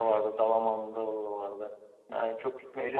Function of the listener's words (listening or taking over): listening